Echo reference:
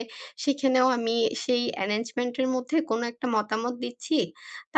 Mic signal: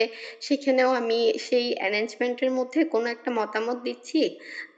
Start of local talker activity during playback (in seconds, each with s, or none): none